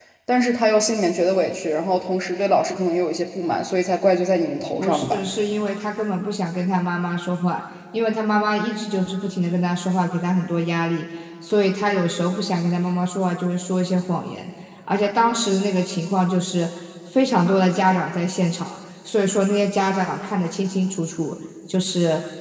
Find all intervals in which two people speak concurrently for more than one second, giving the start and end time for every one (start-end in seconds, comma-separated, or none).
none